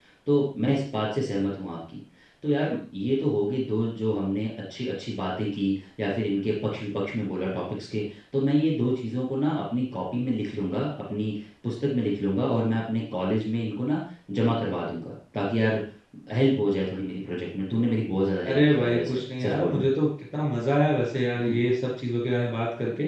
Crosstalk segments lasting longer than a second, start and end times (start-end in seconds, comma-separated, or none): 18.5-19.8